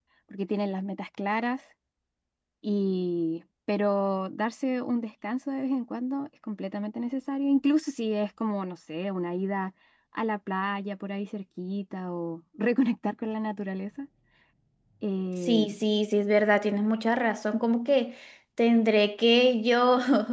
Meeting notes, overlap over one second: none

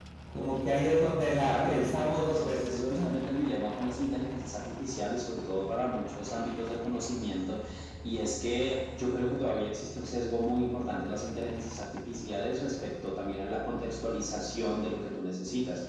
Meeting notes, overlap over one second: present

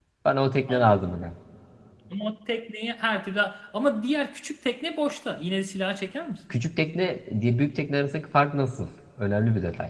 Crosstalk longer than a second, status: none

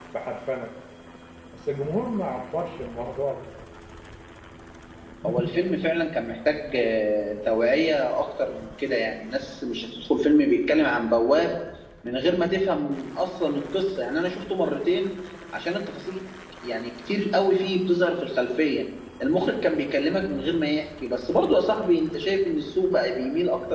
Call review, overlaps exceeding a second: none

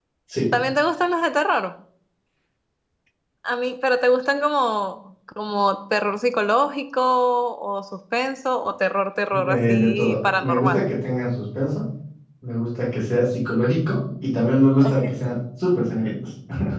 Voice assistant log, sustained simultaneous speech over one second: present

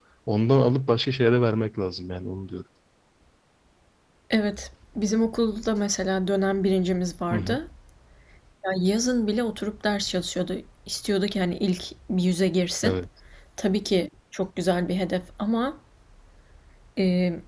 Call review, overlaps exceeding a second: none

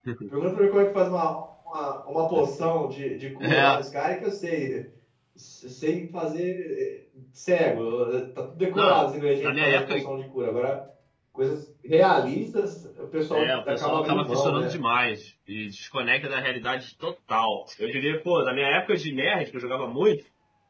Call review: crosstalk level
present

